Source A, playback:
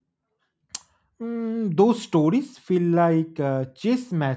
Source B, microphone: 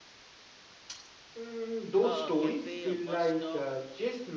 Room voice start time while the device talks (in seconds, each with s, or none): 2.0 s